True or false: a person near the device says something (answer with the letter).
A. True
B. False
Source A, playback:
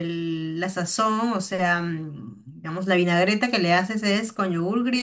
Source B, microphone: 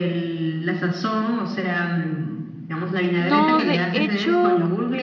A